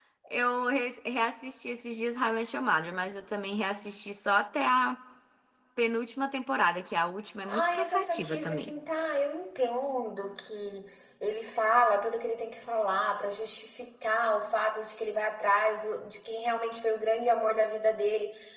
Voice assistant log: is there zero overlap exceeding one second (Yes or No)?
No